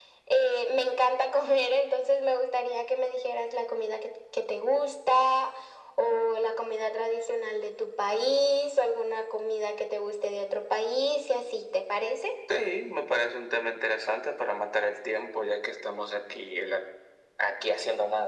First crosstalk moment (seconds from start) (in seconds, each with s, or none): none